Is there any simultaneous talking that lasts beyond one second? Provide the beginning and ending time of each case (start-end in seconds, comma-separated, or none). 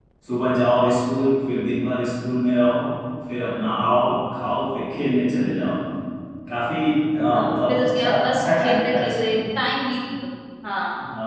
7.3-9.4